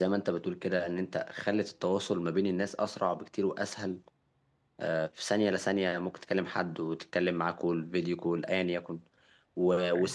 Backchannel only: Yes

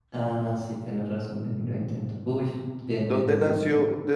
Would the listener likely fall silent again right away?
No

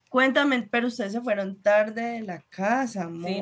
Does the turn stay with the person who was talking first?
No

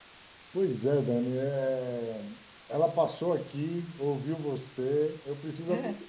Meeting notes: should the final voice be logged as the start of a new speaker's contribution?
No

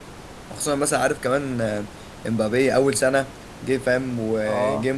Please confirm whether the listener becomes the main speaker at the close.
No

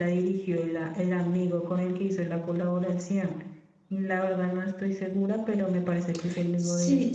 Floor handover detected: Yes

